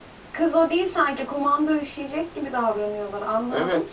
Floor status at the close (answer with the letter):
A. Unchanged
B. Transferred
B